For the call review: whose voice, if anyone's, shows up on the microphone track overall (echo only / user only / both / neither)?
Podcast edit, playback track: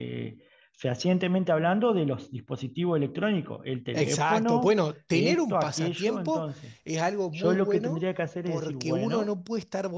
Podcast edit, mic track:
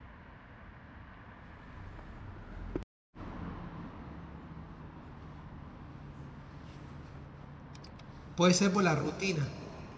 user only